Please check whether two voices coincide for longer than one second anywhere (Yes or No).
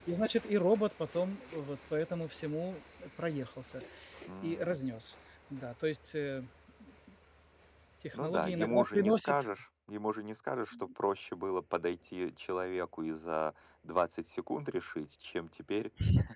Yes